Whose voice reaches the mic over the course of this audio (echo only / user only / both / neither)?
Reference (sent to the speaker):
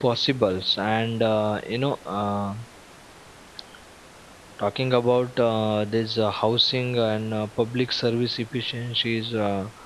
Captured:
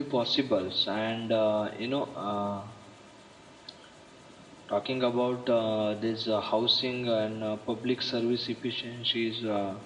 echo only